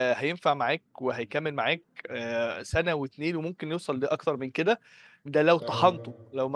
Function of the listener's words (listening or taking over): listening